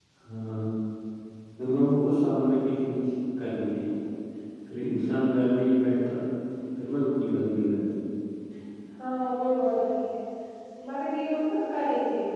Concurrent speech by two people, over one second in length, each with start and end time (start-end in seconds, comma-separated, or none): none